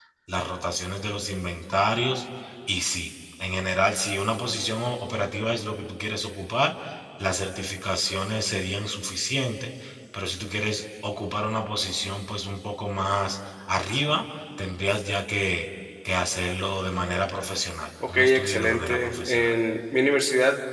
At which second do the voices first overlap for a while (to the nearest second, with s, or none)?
18 s